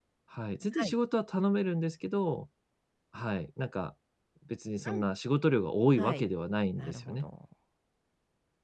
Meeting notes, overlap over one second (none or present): none